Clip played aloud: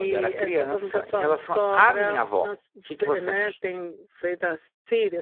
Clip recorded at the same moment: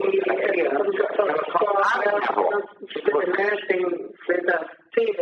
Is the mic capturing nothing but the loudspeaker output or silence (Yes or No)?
Yes